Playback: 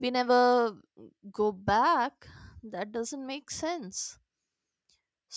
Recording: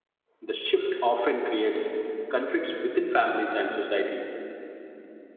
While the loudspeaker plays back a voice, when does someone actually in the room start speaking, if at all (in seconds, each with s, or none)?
0.4 s